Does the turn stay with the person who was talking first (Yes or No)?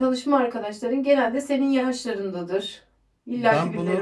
No